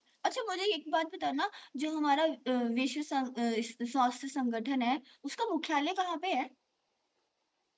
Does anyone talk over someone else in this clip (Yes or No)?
No